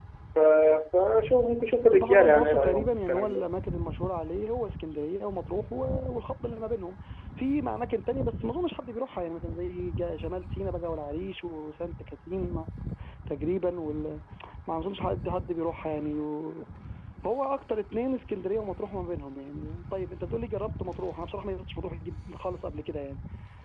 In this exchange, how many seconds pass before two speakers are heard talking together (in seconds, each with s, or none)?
1.9 s